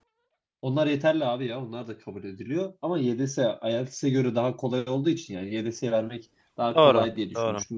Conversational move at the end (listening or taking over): listening